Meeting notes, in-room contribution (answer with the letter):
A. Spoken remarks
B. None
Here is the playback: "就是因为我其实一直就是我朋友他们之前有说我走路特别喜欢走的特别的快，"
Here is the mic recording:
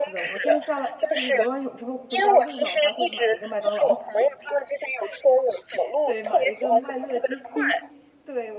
A